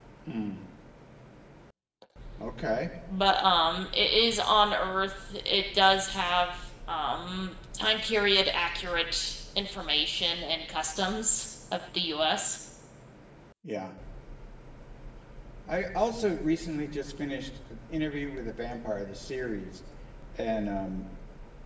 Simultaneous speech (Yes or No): No